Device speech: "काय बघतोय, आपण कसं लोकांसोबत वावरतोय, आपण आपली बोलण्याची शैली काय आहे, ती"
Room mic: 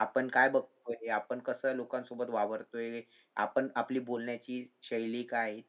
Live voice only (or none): none